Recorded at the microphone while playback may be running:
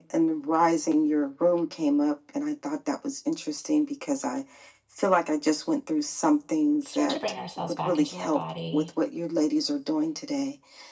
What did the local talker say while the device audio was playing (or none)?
Let's start to bring ourselves back into our body.